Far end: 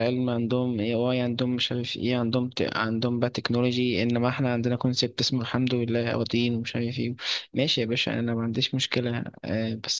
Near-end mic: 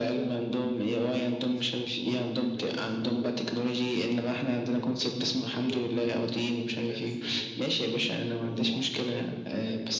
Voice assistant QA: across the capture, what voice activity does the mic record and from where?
both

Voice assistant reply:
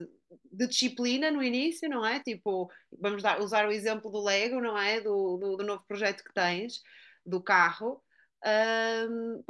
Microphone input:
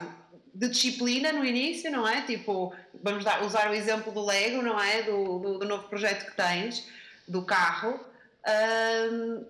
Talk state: echo only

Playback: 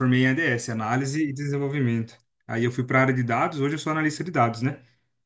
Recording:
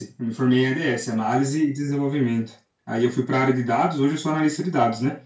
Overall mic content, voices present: echo only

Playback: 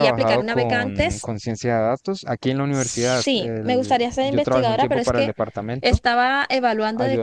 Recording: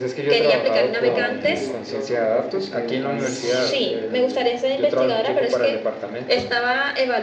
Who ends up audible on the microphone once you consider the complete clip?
both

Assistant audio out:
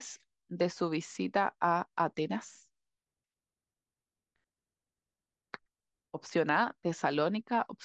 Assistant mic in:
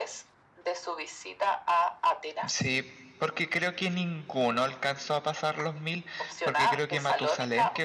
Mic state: both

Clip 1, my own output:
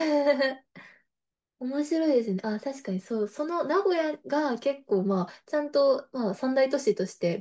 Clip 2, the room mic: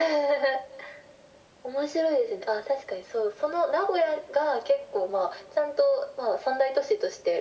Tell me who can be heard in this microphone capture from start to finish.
echo only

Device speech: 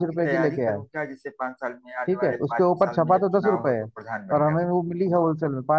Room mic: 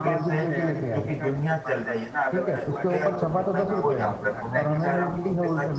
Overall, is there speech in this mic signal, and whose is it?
both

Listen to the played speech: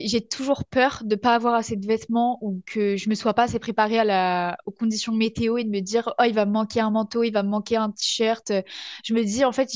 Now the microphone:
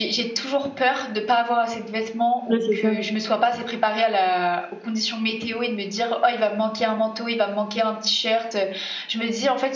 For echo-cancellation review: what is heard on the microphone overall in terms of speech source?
both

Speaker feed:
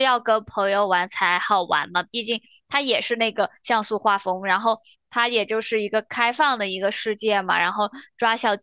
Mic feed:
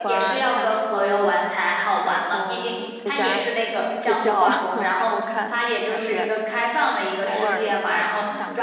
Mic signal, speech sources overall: both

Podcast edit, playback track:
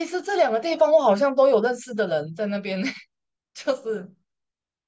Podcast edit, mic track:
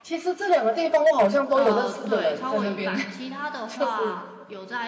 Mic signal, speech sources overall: both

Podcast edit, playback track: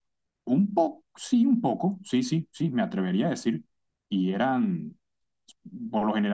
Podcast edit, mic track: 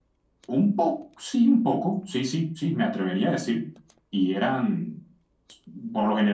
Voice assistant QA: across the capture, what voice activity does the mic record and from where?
echo only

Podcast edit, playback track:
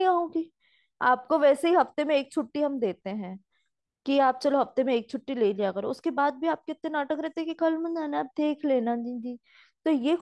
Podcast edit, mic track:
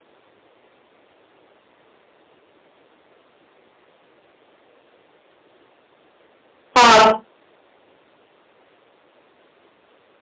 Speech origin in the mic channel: user only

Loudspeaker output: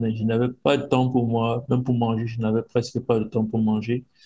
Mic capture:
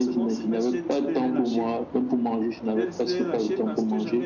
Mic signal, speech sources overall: both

